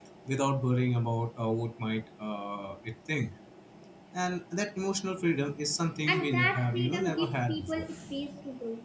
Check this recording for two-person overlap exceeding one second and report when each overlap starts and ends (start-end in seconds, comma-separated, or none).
6.1-7.9